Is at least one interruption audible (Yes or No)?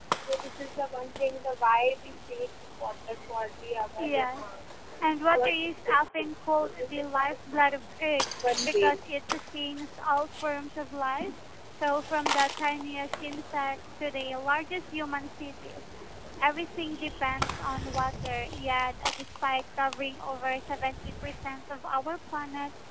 Yes